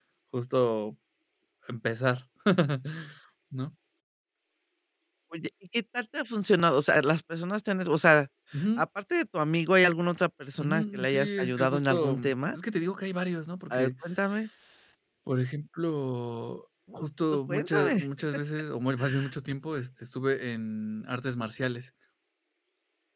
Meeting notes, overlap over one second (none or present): present